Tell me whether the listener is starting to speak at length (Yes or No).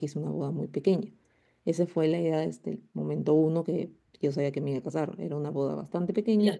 No